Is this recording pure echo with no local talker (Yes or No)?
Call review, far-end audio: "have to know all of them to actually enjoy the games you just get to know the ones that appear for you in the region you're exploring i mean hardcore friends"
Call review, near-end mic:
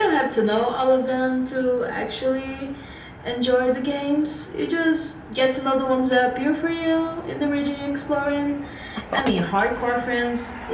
Yes